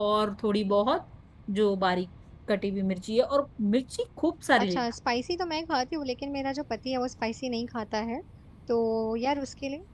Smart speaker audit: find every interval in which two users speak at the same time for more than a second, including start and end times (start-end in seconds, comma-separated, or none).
none